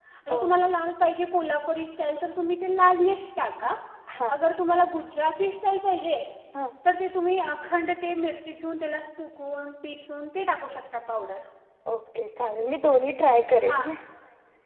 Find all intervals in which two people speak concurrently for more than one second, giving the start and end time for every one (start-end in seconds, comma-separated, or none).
none